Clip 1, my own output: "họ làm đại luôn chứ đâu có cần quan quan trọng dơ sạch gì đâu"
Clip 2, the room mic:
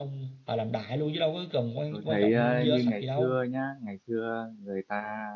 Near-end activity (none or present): present